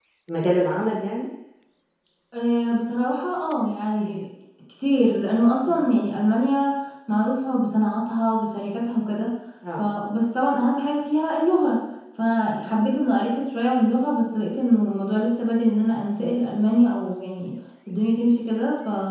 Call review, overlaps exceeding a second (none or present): none